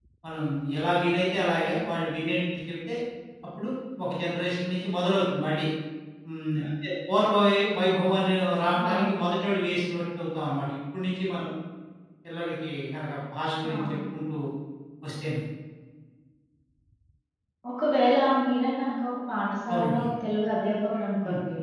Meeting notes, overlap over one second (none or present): none